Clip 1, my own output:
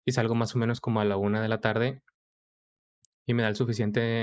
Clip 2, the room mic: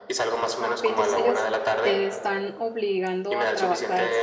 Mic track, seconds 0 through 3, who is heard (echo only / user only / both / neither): both